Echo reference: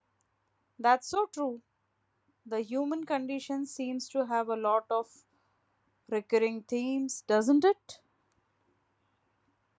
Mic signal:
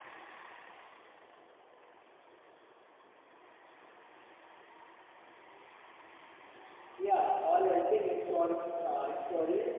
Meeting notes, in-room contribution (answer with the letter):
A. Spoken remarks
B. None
A